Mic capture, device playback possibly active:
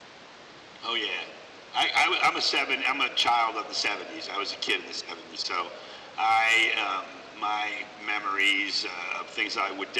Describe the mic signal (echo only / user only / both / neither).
echo only